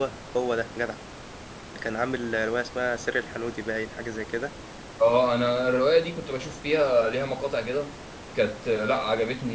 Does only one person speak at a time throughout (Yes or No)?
Yes